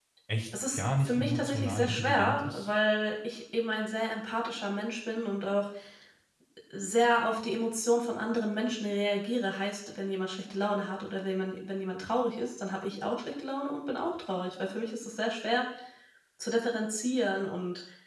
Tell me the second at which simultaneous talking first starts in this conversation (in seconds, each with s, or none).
0.7 s